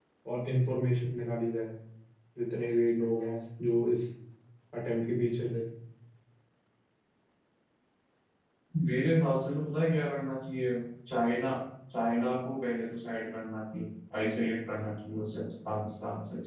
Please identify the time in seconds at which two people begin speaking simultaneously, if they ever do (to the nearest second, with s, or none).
none